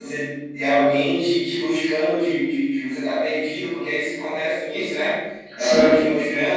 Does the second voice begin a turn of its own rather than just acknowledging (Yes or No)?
No